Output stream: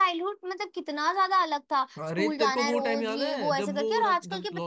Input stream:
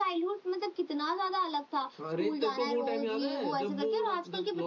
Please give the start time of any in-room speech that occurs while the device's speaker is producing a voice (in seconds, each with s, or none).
none